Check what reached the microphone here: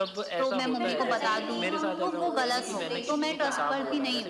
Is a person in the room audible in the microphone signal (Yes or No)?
Yes